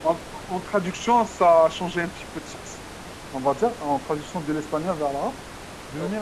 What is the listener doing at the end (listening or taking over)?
listening